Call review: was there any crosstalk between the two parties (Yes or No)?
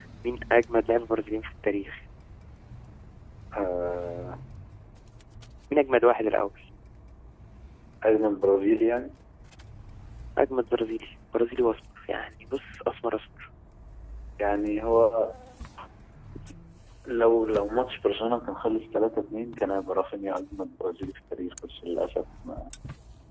No